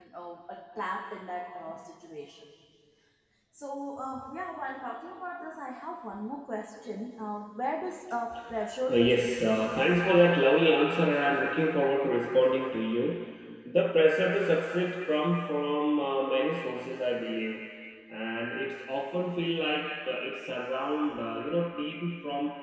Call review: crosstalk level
present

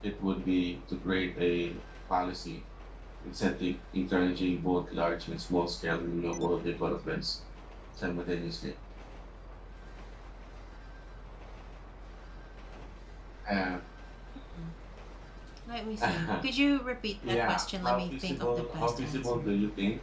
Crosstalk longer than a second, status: present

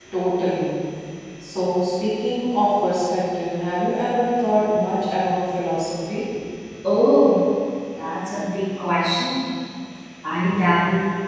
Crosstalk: none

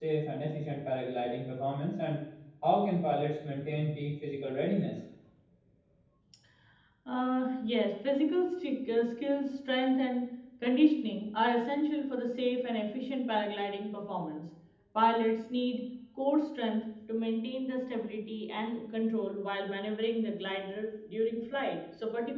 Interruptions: none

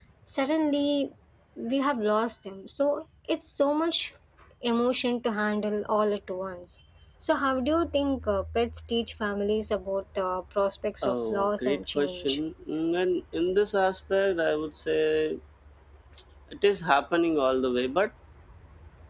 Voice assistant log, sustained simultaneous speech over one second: present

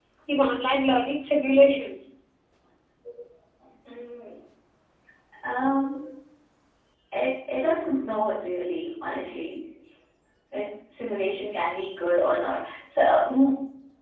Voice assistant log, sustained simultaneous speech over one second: none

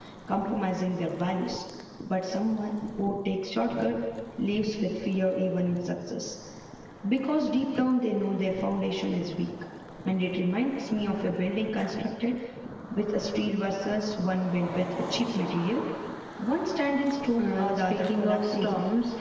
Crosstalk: present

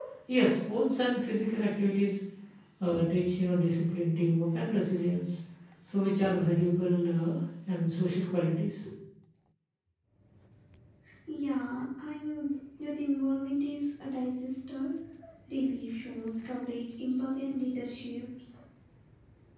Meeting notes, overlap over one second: none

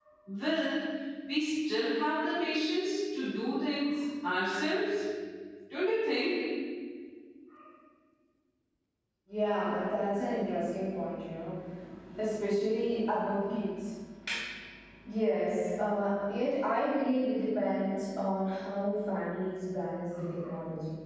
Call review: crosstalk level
none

